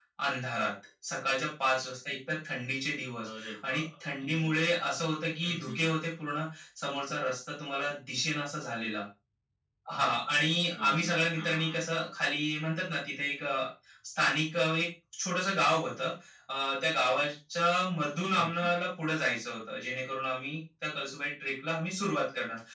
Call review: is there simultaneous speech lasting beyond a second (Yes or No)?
Yes